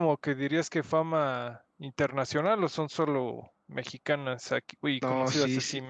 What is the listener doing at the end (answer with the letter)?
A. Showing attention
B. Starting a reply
B